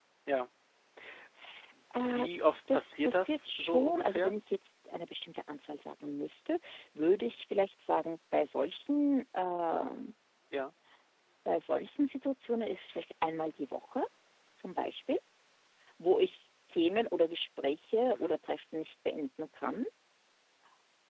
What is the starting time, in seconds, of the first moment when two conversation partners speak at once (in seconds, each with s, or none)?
2.7 s